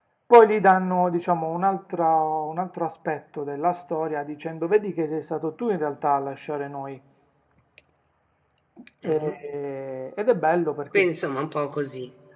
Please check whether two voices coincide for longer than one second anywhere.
No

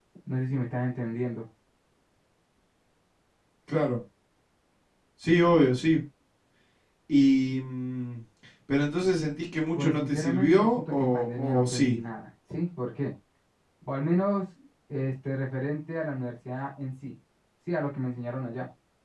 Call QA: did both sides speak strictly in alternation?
No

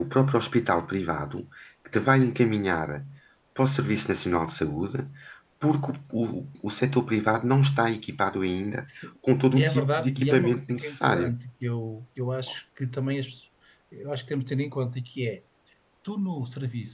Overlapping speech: Yes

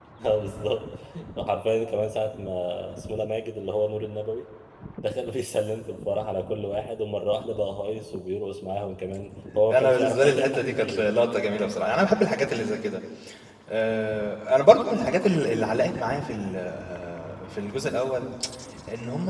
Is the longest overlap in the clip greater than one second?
Yes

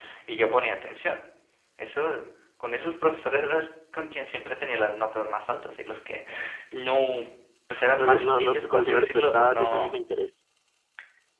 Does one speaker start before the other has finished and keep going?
Yes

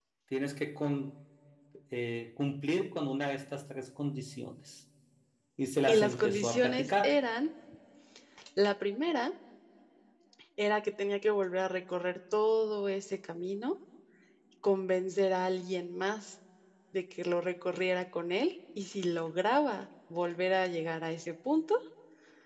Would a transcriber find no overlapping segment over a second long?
No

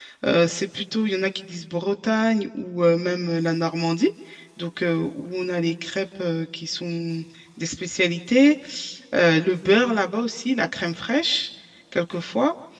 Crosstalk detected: No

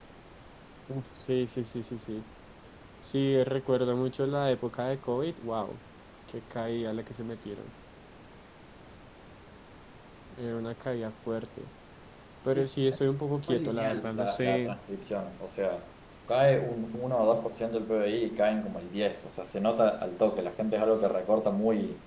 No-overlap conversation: No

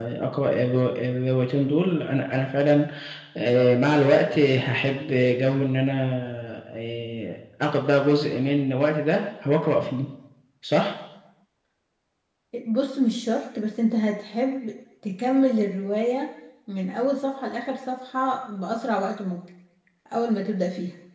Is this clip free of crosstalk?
Yes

